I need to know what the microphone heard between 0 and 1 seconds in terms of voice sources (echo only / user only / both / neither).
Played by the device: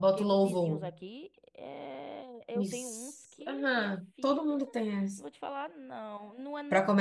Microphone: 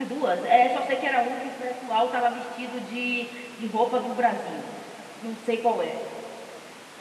user only